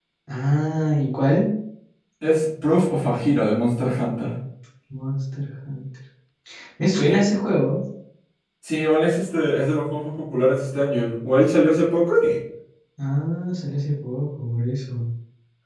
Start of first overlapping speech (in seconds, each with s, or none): none